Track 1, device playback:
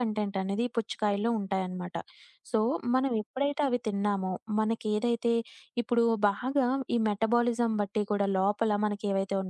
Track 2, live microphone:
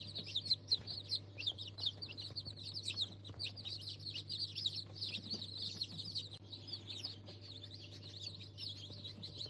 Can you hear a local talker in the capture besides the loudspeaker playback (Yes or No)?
No